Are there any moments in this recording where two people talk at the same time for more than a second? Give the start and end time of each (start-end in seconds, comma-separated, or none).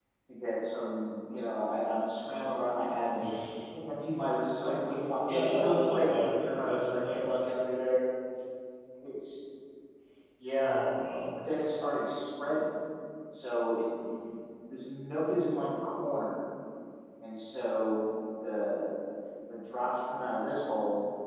5.3-7.2